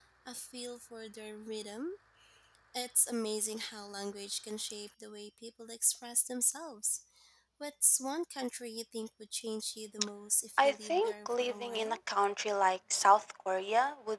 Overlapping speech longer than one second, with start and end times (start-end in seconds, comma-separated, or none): 10.6-12.0